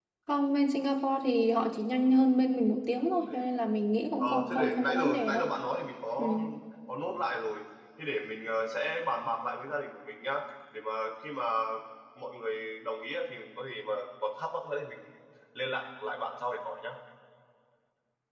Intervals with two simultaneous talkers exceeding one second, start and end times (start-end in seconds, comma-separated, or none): 4.2-5.4